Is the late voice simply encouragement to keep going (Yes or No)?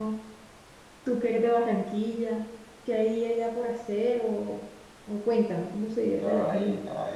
No